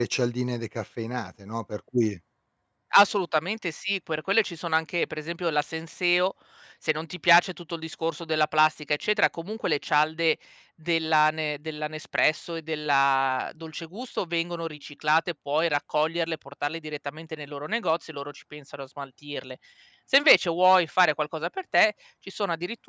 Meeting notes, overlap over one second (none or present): none